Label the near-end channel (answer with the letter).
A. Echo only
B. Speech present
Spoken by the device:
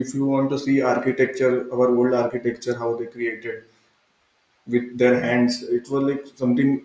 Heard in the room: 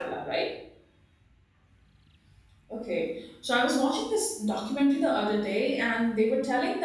B